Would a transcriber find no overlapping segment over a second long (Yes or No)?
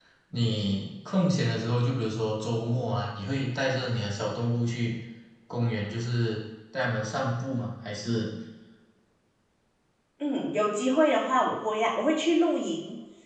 Yes